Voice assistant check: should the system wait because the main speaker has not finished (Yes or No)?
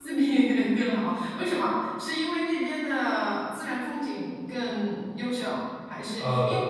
Yes